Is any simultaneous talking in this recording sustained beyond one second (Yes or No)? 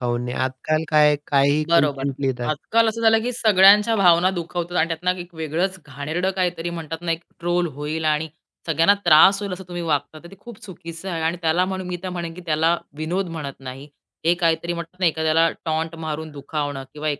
No